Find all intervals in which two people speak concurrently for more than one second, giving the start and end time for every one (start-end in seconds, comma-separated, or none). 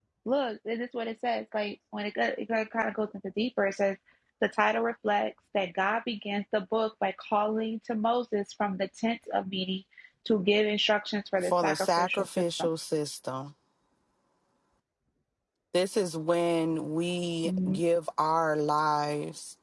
11.4-12.7